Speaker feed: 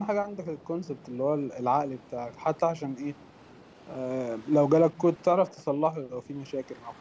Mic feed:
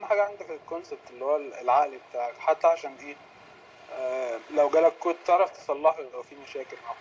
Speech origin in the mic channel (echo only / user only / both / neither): echo only